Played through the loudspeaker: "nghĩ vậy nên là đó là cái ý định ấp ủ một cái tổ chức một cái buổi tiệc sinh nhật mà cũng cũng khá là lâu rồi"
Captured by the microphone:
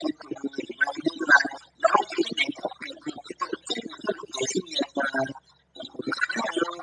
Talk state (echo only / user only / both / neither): echo only